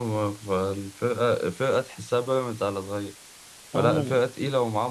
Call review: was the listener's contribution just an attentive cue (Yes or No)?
Yes